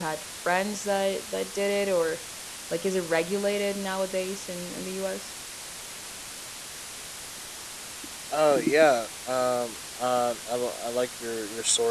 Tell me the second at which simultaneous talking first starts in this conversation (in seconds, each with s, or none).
none